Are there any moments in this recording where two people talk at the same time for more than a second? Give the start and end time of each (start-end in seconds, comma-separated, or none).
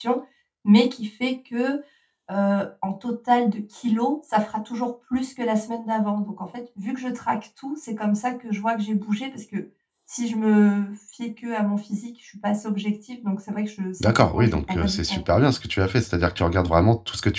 14.0-15.4